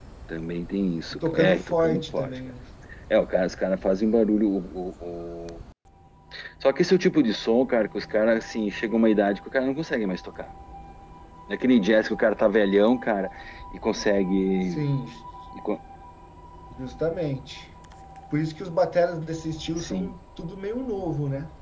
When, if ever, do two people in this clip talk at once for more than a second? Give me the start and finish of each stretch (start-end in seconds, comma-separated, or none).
1.1-2.4